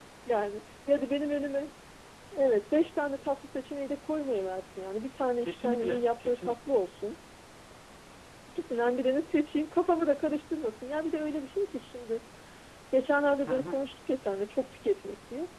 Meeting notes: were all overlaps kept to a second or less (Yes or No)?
No